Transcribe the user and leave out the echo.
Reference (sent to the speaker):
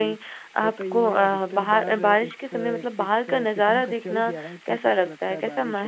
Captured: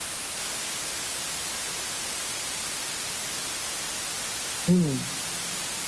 हुँ।

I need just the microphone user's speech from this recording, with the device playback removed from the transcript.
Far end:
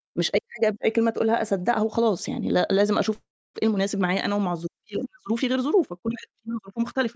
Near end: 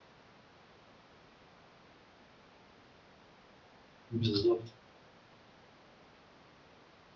بالضبط،

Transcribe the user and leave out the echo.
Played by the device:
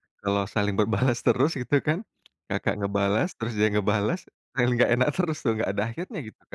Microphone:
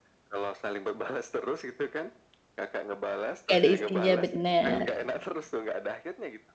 Nggak ada isinya, benar.

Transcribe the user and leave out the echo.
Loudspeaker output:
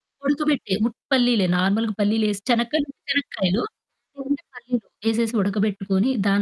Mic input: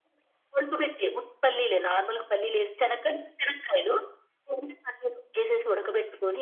none

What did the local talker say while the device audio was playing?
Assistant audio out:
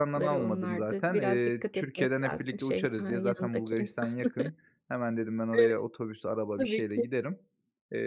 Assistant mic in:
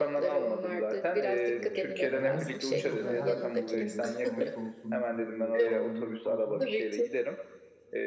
Eee, ya benlik hiç sıkıntı yok. Ben her ülkeye giderim. Savaş olsun, k ııı, kavga gürültü olsun.

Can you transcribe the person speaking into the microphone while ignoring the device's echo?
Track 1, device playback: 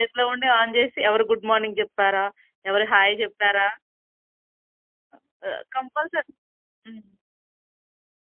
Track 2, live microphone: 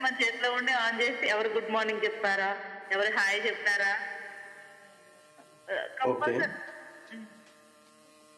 ఓకే.

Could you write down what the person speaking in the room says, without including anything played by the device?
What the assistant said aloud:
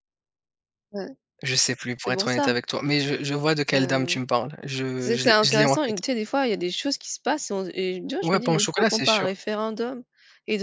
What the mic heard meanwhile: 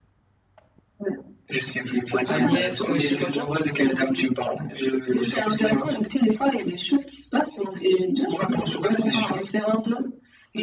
Agnès, heu, je sais pas quoi.

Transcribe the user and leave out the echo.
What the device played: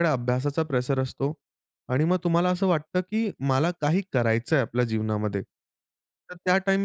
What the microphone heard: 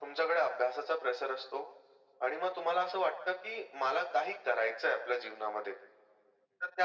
none

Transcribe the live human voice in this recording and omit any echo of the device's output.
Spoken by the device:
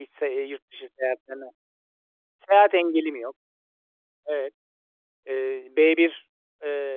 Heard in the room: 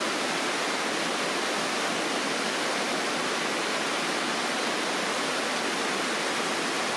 none

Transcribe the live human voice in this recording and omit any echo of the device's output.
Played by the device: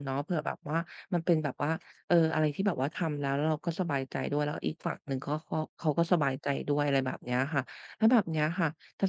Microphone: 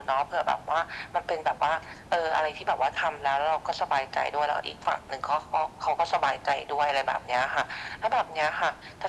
none

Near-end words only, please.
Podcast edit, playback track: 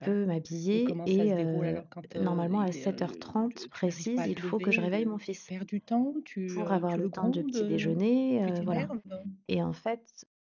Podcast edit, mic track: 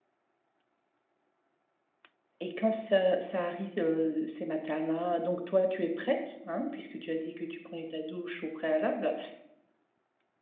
et quand ça ça arrive, heu, ces matins-là, donc toi tu es prête, hein, puisque tu as dit que tu prenais ta douche au préalable.

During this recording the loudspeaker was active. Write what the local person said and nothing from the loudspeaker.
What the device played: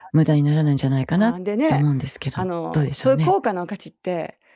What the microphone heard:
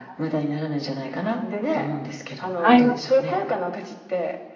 あいますね。

